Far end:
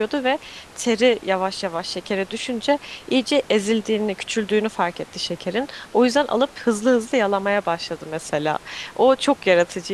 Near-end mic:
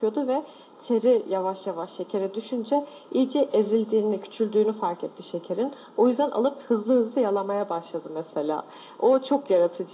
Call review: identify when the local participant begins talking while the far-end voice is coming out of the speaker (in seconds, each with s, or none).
none